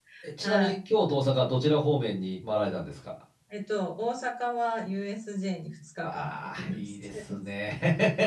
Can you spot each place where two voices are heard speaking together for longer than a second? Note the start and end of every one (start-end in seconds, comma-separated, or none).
6.0-7.2